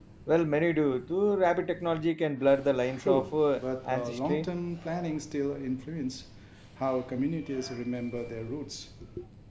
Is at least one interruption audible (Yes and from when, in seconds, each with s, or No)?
Yes, from 3.0 s